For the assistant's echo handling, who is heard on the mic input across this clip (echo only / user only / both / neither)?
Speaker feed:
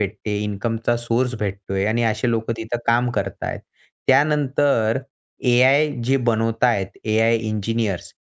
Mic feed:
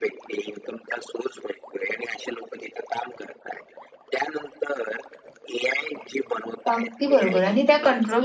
both